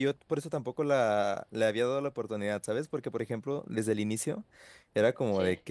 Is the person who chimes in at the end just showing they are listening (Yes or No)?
Yes